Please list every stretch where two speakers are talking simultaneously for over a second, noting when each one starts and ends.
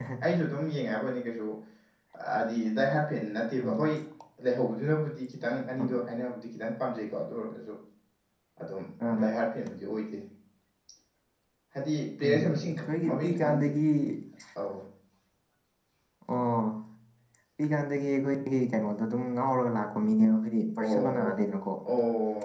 12.2-13.7

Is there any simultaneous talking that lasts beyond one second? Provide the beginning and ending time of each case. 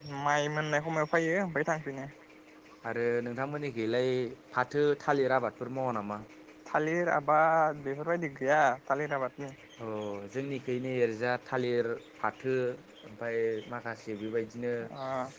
none

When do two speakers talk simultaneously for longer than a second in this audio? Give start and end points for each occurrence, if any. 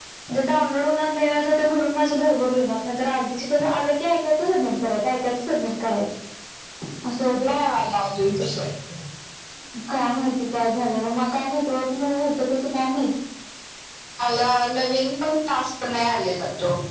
none

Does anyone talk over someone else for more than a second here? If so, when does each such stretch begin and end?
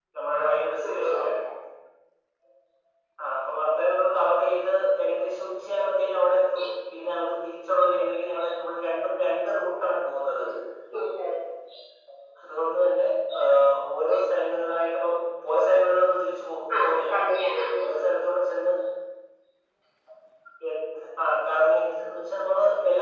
none

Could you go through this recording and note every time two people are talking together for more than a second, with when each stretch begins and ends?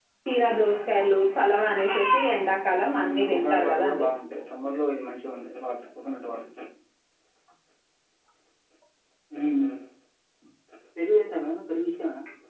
2.9-4.1

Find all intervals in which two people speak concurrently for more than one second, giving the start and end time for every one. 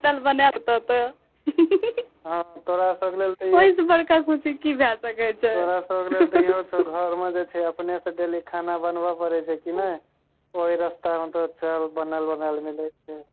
none

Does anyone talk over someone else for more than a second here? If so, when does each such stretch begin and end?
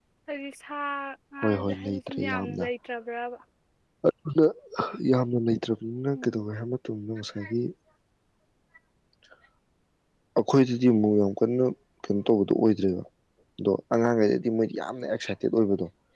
1.4-2.7

